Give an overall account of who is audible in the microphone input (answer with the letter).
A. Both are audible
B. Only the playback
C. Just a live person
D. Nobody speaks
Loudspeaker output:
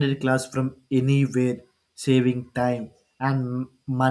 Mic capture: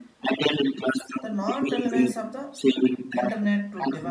A